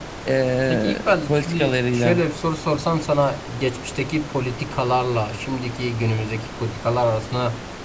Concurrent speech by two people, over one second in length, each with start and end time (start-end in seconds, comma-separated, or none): 0.7-2.2